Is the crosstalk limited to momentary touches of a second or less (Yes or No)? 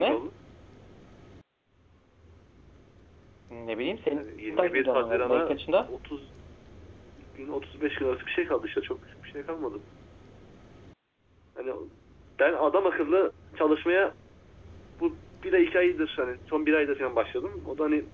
No